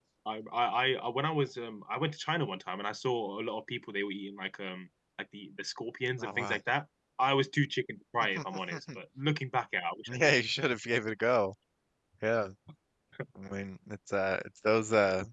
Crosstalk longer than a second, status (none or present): none